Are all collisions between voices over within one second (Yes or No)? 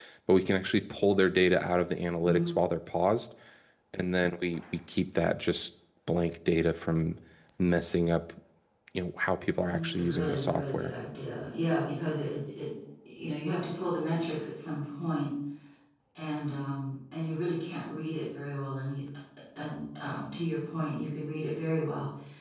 No